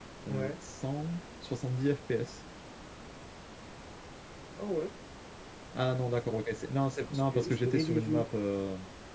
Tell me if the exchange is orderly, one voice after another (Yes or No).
No